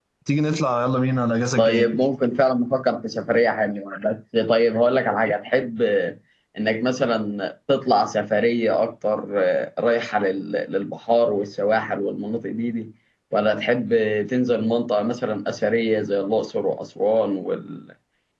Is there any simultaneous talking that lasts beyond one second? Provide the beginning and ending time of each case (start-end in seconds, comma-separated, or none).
none